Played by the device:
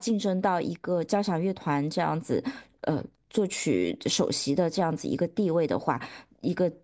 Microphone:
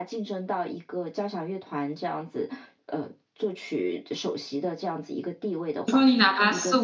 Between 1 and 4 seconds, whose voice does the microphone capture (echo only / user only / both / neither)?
echo only